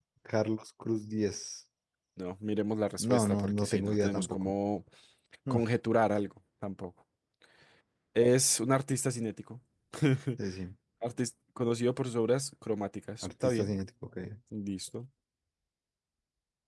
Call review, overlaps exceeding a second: present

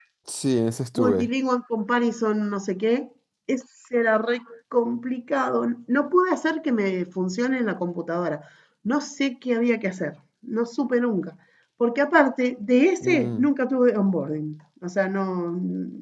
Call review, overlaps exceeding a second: none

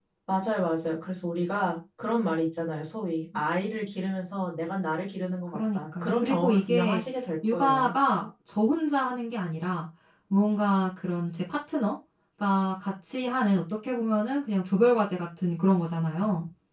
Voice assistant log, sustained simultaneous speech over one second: present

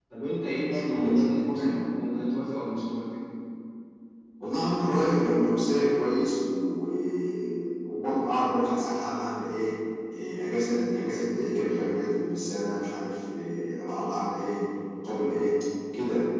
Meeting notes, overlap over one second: none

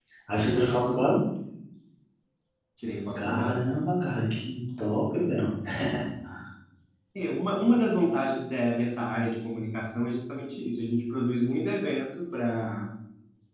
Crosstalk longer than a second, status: none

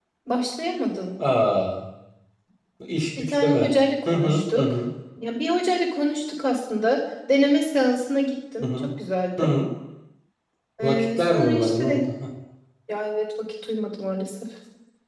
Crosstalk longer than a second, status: present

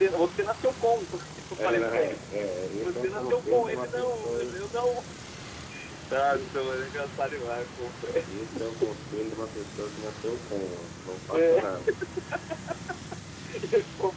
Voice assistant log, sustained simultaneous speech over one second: present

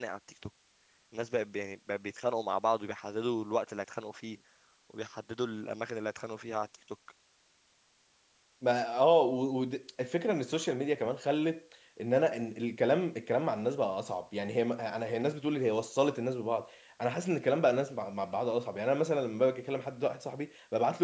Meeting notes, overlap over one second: none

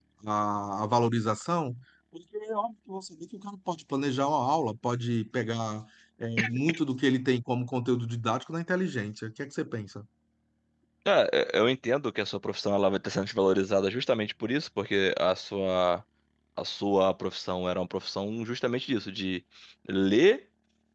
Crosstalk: none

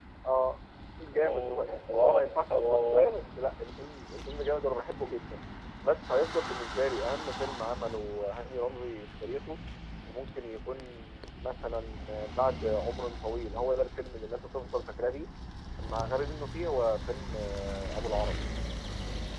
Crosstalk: present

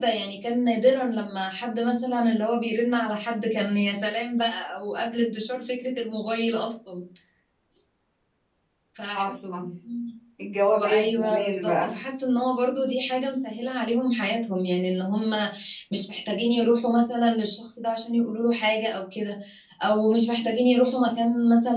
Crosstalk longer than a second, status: present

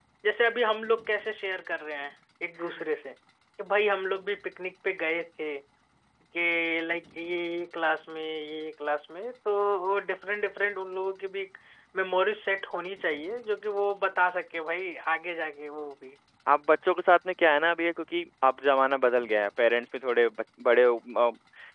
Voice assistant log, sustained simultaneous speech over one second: none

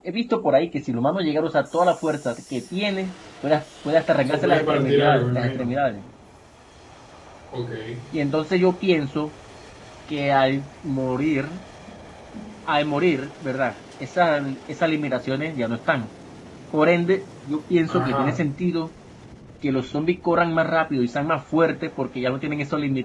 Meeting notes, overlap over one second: present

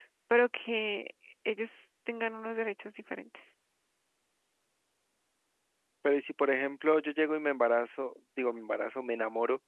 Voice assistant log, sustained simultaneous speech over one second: none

